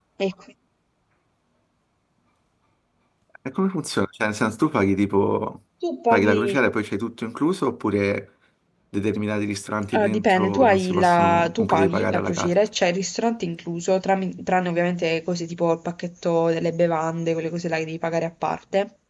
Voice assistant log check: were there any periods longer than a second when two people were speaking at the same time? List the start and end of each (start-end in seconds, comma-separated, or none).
10.0-12.5